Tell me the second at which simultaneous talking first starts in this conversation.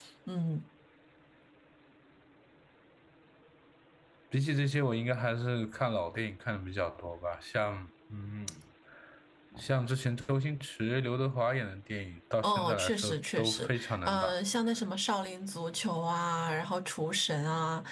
12 s

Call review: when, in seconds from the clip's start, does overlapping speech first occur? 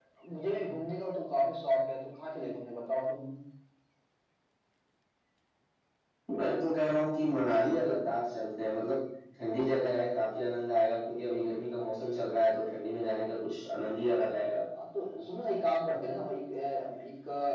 none

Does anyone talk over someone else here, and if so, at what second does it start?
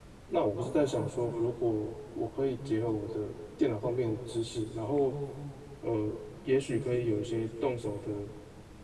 none

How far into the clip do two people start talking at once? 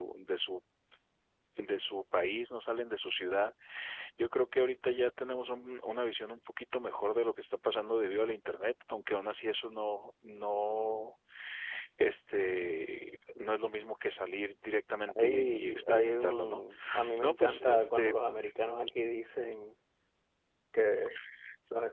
15 s

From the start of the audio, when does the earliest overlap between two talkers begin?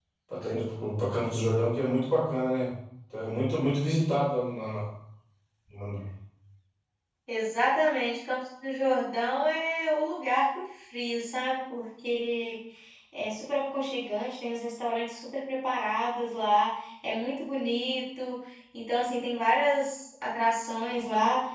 none

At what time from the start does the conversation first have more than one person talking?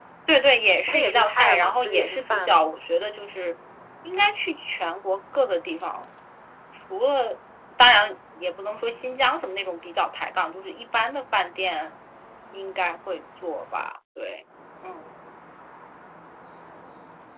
1 s

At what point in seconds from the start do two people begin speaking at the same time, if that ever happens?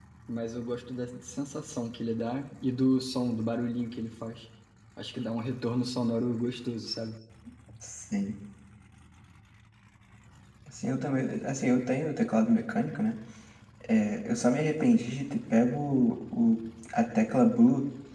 none

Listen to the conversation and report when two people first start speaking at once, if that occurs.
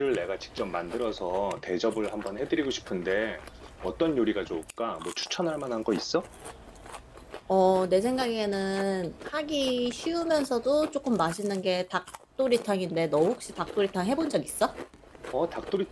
none

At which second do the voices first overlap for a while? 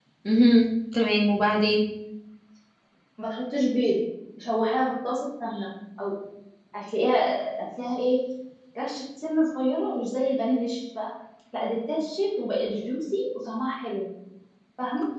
none

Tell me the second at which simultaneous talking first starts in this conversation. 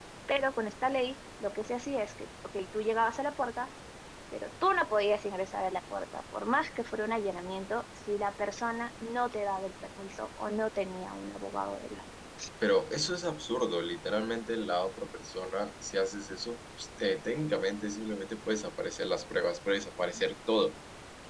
none

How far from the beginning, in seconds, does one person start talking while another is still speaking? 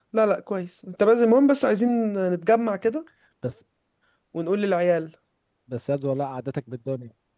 none

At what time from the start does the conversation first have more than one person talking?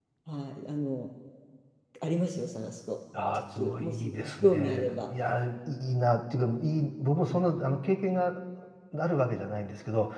3 s

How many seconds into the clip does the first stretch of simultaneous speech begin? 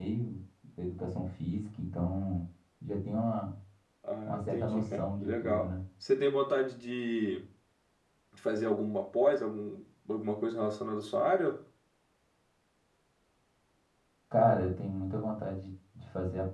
4 s

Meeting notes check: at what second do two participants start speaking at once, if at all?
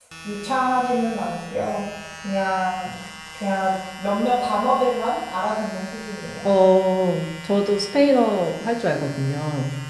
none

